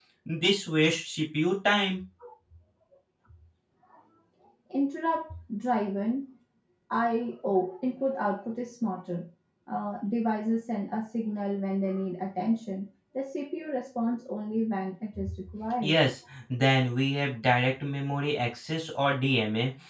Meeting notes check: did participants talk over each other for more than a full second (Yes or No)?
No